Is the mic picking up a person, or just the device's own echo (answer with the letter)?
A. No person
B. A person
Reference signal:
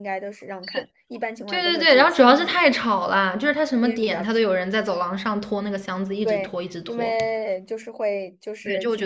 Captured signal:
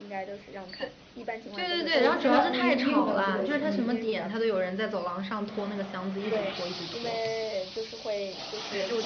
B